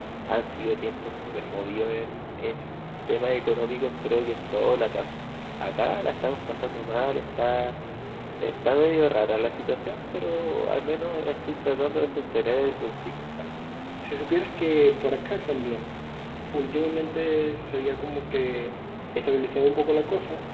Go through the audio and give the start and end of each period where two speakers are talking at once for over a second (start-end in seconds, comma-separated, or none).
none